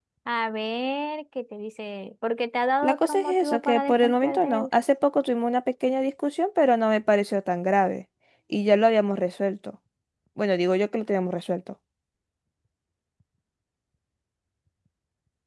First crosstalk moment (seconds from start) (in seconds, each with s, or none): 2.8 s